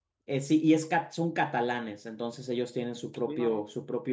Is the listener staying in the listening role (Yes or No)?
Yes